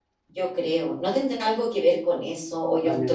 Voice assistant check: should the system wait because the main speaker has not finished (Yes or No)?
No